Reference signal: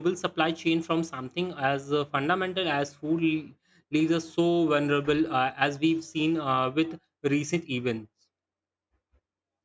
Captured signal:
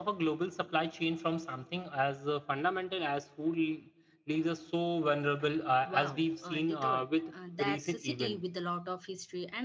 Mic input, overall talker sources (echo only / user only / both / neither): both